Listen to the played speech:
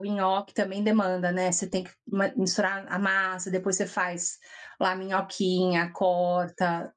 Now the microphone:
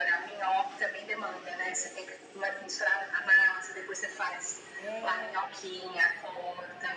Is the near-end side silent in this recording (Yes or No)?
No